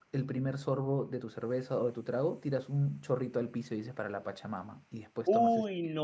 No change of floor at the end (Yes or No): No